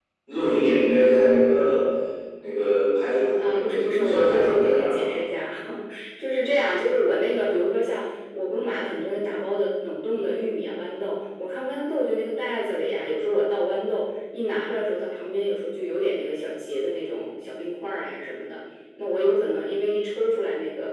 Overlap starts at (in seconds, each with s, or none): 3.4 s